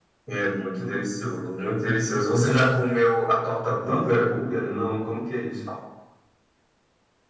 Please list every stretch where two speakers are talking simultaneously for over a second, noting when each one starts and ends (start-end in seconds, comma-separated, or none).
none